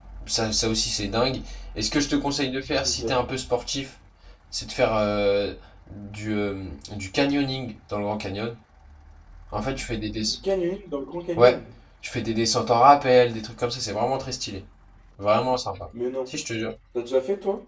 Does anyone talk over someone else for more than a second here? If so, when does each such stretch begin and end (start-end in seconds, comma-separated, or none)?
none